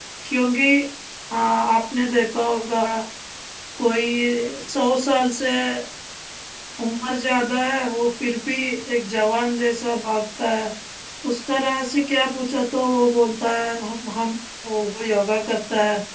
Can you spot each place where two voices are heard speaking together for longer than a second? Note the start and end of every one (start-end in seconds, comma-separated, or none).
none